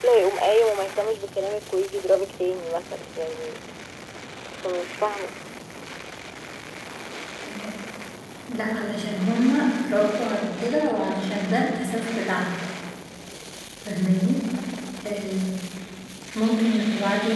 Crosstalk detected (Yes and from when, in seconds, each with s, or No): No